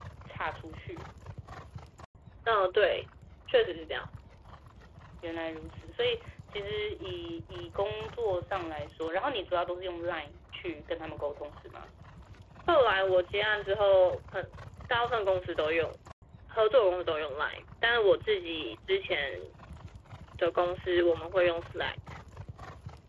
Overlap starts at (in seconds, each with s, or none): none